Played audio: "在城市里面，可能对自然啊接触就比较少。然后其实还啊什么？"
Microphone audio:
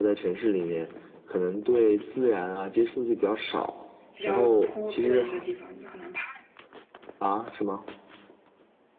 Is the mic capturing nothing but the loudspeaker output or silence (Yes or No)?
No